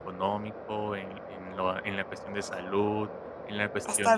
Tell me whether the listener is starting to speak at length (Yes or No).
Yes